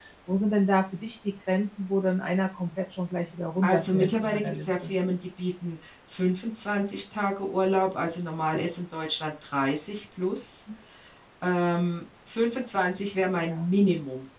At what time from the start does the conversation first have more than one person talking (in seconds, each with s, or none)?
3.6 s